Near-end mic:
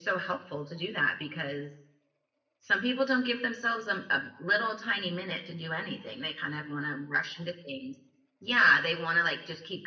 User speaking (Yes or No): No